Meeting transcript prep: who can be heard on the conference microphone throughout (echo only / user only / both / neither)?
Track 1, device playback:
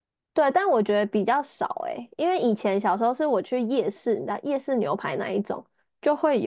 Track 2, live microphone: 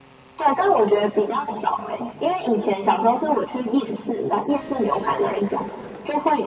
echo only